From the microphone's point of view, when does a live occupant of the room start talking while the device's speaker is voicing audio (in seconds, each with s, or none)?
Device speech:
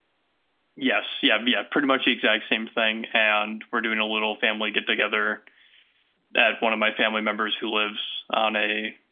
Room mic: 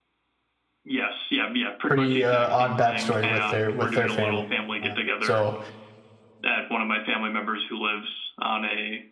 1.9 s